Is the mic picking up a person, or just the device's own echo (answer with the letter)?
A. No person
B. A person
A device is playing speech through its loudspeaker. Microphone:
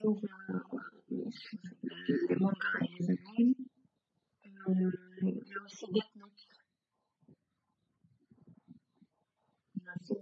A